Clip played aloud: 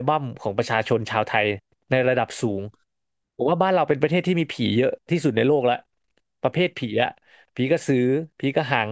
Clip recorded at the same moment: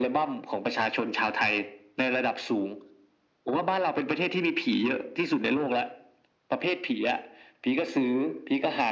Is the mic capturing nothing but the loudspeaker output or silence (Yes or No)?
Yes